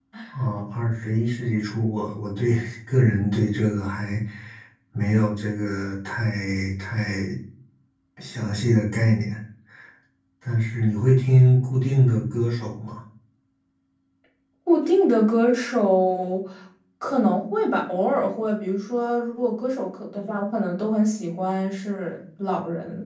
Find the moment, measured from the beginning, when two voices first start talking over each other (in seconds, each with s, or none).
none